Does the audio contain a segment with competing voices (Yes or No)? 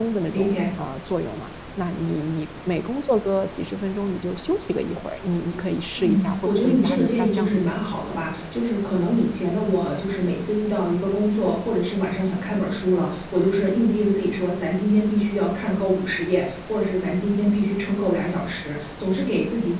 Yes